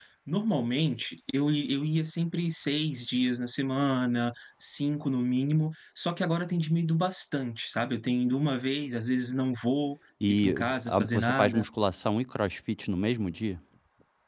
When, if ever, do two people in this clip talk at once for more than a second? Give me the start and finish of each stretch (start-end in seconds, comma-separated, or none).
10.3-11.7